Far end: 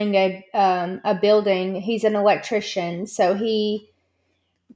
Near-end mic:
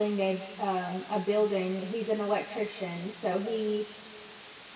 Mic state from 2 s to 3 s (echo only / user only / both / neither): echo only